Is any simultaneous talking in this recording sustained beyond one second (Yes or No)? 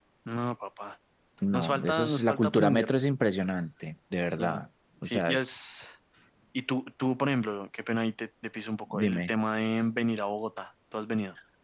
Yes